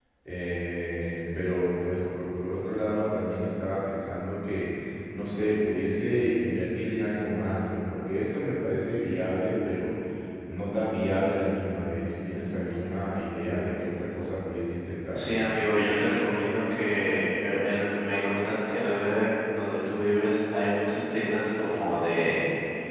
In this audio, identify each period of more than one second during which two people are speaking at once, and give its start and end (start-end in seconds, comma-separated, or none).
none